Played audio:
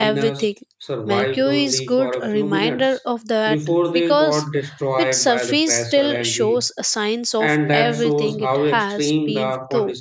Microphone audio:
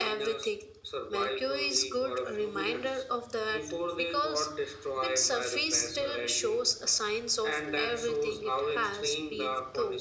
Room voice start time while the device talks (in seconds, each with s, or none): none